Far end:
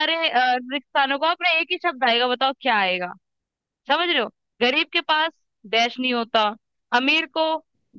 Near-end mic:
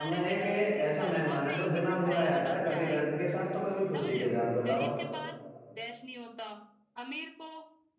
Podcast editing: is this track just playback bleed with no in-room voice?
No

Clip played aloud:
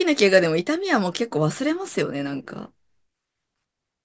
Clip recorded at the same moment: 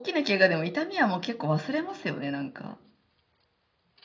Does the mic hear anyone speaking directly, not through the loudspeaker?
No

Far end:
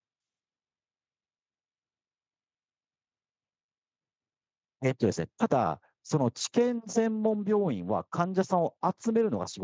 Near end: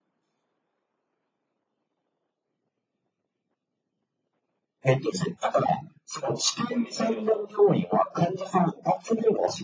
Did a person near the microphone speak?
Yes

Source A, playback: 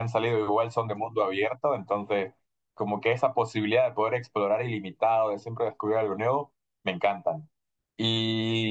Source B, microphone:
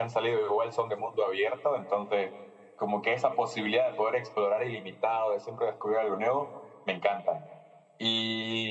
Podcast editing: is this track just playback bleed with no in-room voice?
Yes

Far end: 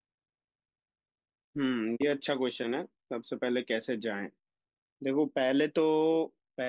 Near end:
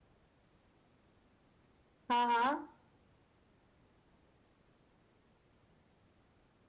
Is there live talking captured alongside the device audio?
Yes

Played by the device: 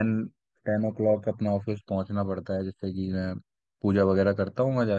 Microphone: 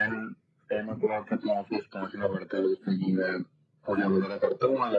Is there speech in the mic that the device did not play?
No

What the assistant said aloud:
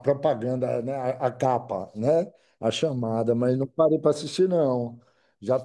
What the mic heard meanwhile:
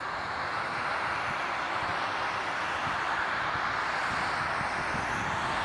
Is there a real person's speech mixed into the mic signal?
No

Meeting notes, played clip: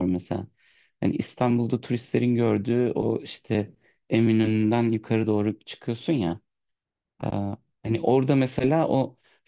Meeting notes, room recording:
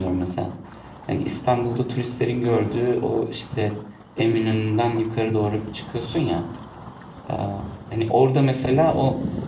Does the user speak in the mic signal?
No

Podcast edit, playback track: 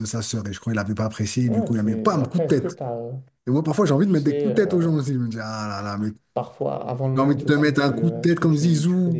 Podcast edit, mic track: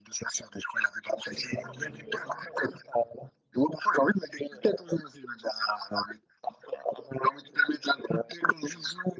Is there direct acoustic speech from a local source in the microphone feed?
Yes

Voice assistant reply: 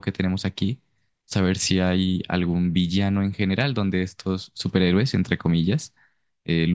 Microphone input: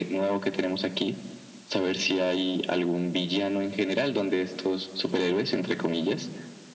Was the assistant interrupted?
No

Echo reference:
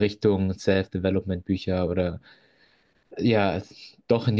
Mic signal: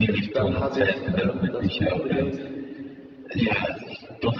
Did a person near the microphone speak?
Yes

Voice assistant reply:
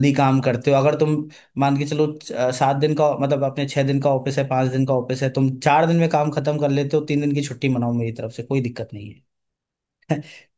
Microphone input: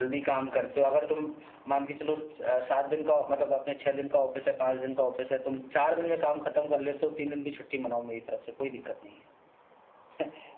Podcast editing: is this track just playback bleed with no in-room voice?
Yes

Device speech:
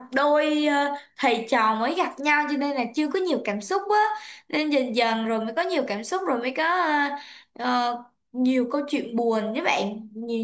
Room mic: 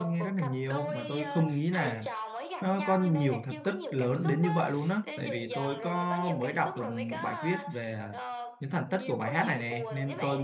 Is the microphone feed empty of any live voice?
No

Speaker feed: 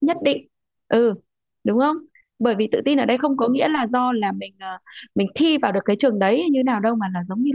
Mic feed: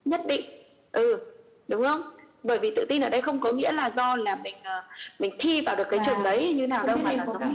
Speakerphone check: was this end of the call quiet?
No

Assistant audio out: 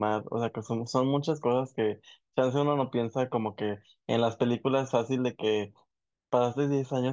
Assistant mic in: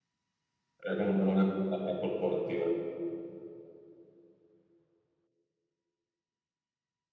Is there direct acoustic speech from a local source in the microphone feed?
Yes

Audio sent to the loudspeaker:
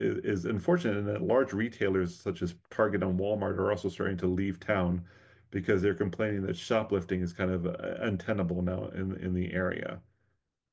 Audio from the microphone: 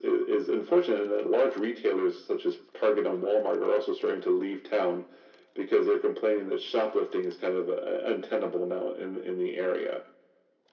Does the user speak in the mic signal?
No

